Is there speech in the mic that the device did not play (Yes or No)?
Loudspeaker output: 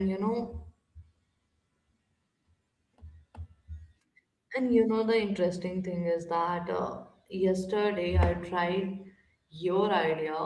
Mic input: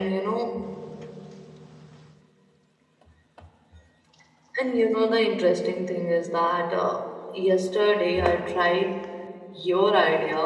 No